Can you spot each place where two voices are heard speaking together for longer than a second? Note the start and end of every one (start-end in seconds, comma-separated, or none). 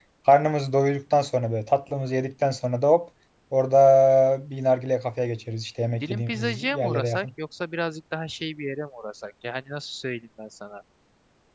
6.0-7.3